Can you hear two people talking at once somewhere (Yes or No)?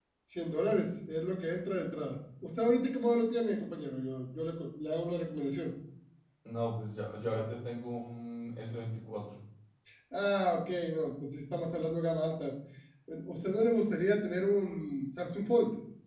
No